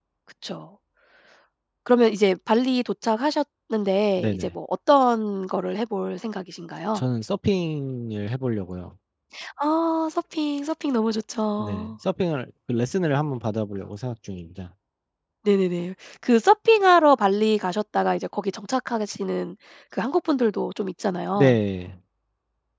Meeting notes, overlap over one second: none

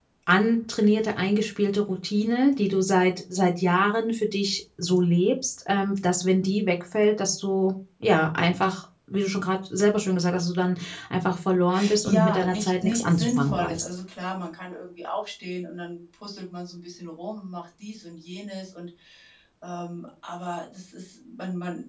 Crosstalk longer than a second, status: present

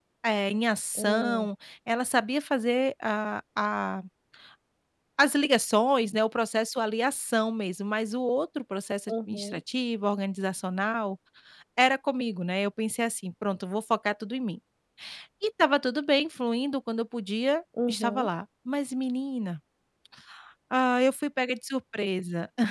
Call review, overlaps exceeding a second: none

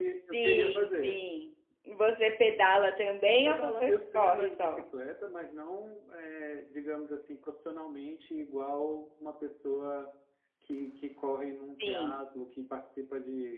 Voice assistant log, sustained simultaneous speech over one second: present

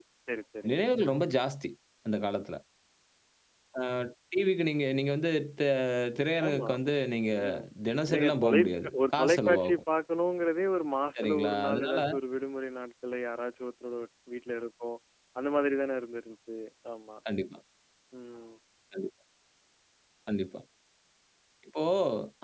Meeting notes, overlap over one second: present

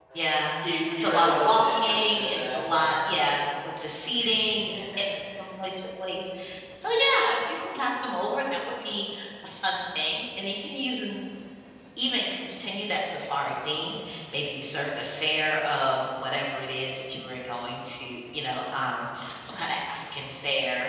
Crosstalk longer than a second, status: present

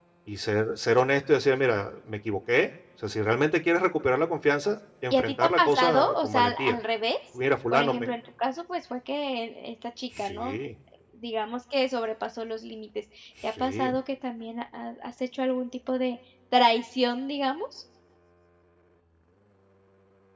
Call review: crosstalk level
present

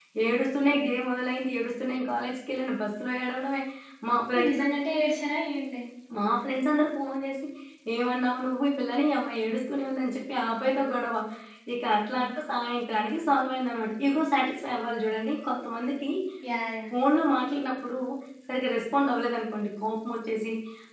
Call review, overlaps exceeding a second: none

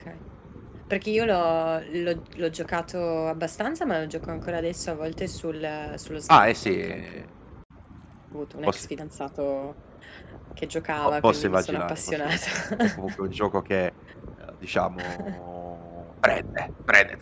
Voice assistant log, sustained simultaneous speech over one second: present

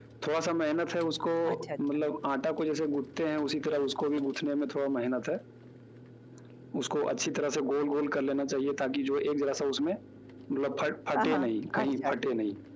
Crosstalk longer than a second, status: present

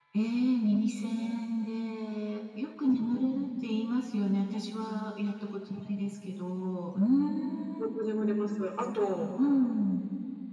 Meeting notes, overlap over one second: none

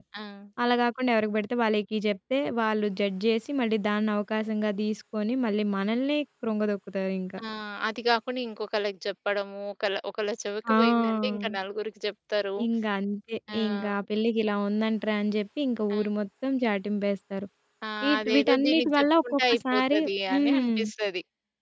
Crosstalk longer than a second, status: present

